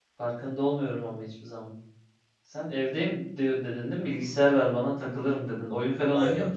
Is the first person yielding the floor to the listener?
Yes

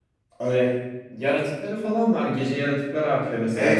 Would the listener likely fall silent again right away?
No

